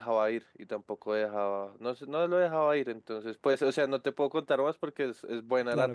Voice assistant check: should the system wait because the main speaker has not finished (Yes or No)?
Yes